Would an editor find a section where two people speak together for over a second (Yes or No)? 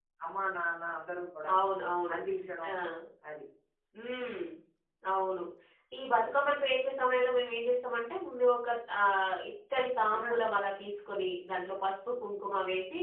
No